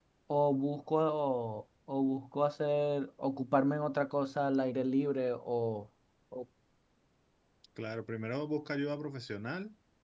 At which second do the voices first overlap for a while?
none

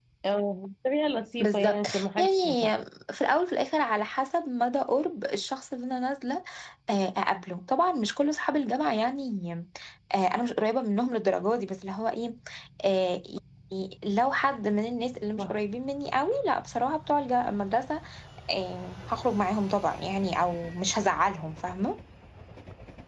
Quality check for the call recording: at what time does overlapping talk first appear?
1.4 s

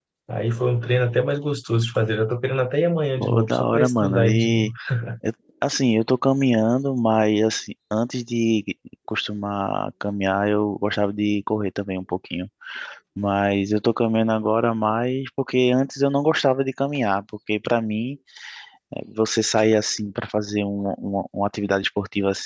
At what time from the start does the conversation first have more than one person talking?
3.2 s

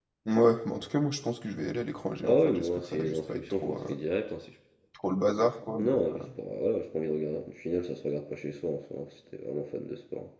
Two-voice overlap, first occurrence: 2.2 s

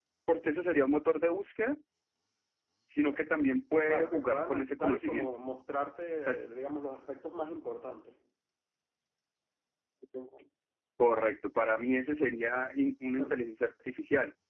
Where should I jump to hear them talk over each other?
3.9 s

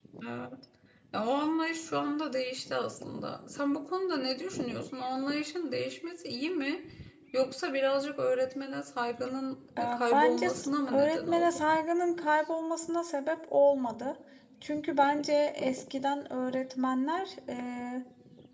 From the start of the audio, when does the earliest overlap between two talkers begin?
9.8 s

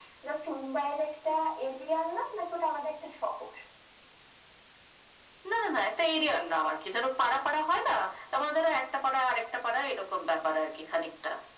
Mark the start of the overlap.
none

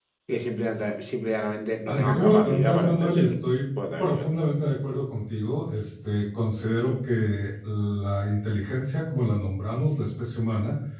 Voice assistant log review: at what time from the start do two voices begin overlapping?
1.9 s

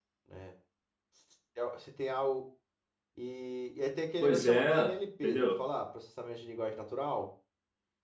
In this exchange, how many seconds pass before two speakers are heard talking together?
4.2 s

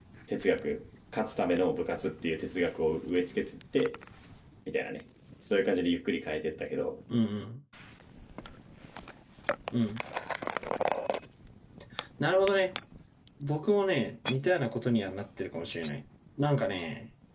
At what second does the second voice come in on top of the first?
none

